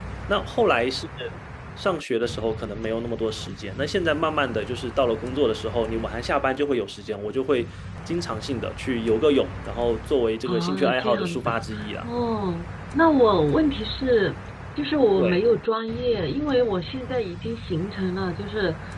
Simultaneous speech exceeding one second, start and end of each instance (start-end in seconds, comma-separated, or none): 10.4-12.0